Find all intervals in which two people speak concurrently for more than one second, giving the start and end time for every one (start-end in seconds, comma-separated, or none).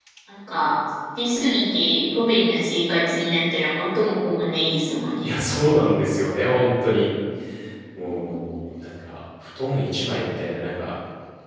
none